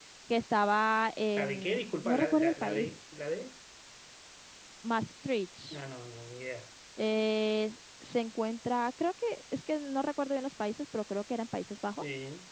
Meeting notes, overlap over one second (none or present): present